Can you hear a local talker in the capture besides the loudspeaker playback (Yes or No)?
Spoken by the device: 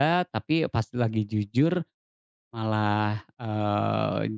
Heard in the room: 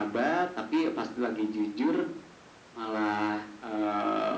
No